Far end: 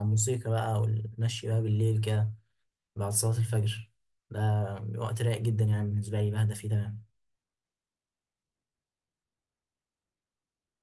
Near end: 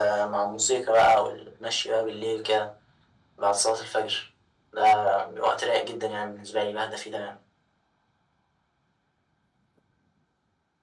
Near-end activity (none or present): none